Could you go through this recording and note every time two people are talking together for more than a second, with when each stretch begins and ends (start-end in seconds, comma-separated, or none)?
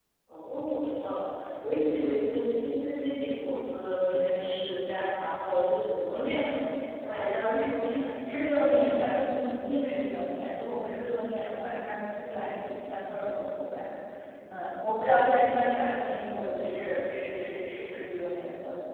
none